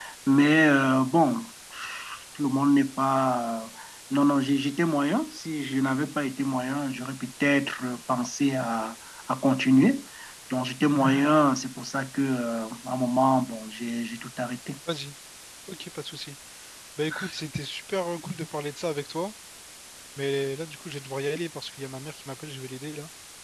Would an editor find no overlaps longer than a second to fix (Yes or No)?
Yes